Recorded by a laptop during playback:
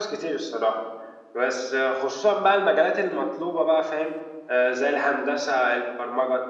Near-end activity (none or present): none